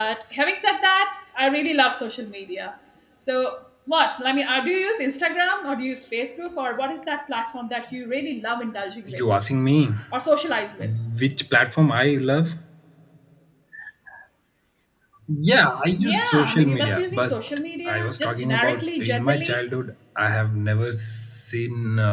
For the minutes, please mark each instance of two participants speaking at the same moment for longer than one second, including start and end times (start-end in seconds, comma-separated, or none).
16.0-17.4, 17.9-19.6